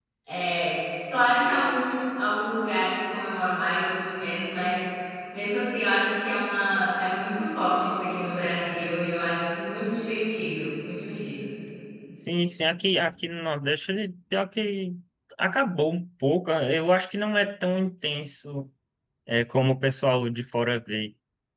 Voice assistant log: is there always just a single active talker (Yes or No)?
Yes